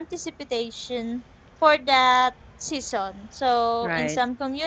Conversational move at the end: listening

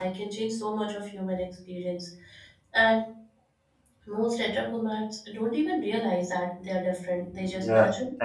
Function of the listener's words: taking over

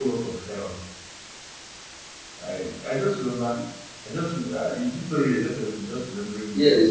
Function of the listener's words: taking over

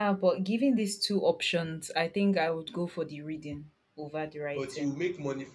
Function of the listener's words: taking over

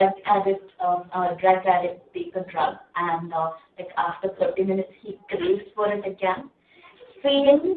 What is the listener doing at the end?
taking over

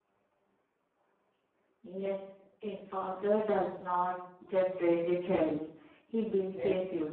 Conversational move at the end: taking over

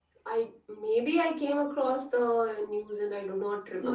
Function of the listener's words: taking over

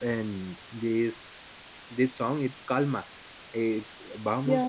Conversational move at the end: listening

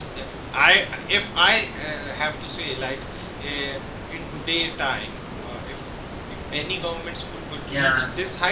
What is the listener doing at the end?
listening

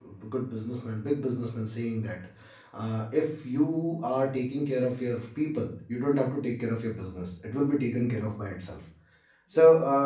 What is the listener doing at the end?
listening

